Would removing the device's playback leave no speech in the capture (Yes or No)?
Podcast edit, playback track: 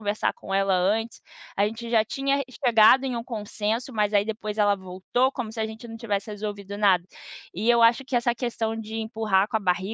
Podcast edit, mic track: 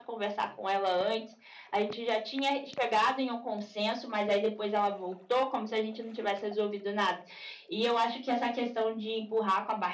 Yes